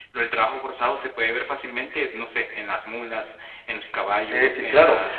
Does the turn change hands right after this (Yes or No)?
Yes